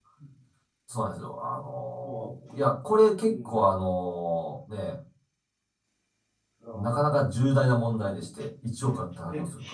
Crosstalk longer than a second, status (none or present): none